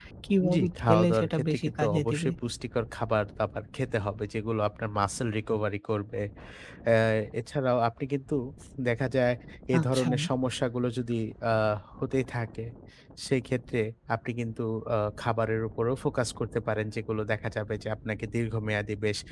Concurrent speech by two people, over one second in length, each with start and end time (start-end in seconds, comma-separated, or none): 0.5-2.3